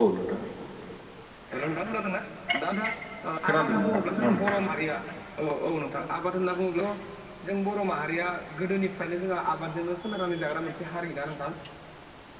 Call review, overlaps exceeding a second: present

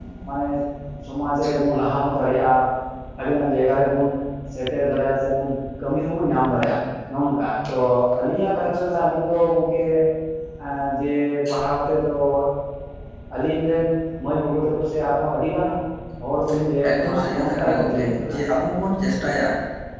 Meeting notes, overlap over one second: present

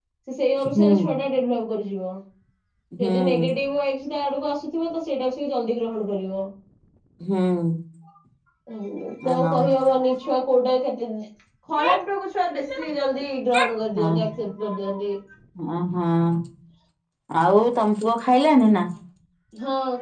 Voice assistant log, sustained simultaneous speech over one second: none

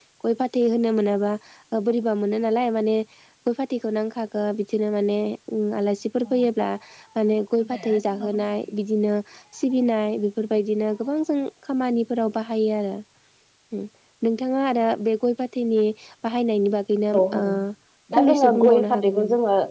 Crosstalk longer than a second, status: present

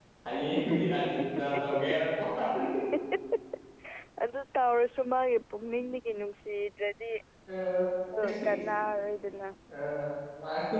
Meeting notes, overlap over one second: none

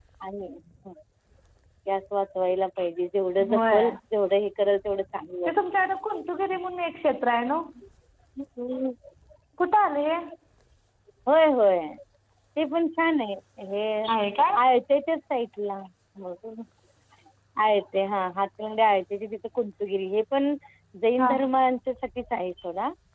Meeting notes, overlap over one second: none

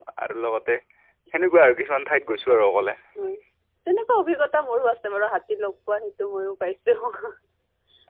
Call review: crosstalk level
none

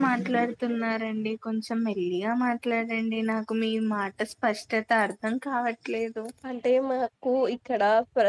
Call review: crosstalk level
none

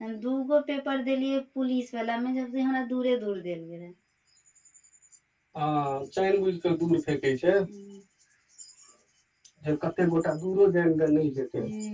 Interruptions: none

